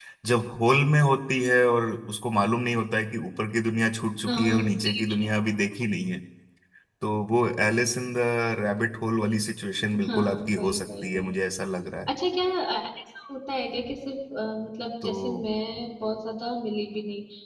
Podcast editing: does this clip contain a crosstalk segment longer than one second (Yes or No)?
Yes